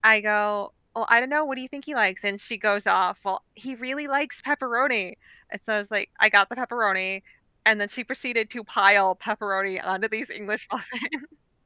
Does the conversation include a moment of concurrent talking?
No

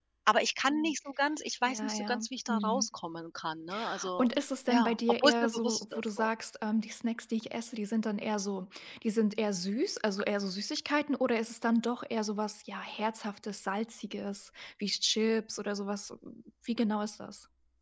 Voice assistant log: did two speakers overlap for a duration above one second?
Yes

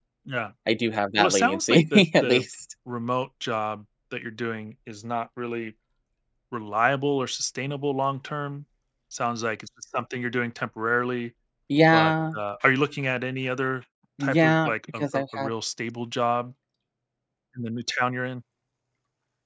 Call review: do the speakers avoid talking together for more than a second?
No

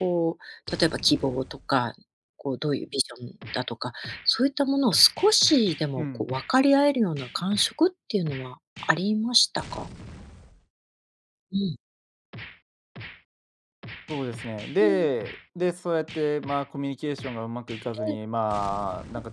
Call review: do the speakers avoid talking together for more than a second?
Yes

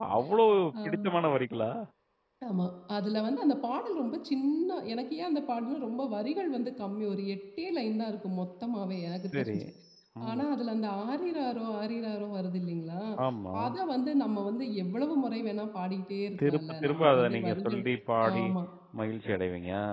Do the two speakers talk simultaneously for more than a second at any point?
Yes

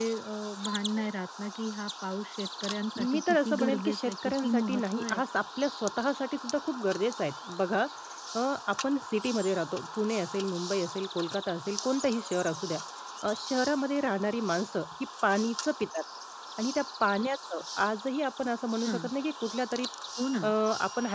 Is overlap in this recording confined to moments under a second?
No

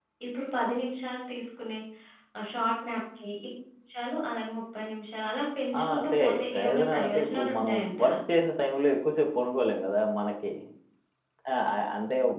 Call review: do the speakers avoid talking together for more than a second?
No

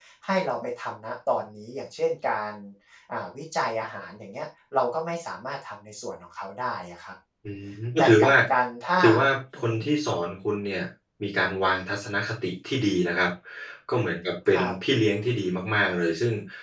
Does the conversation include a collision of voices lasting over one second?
No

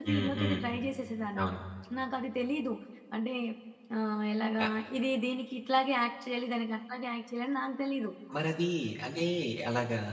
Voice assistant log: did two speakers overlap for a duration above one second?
No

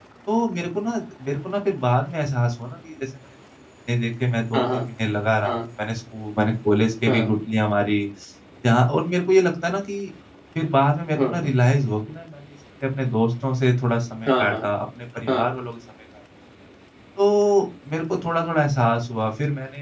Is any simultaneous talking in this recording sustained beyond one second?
No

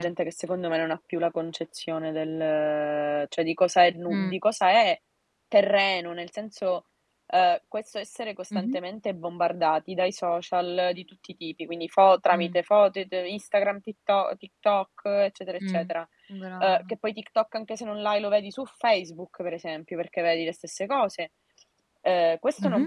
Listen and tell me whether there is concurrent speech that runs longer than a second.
No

